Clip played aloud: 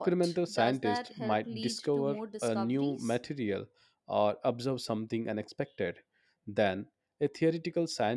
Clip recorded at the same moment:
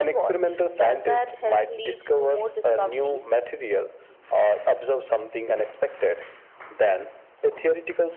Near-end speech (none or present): none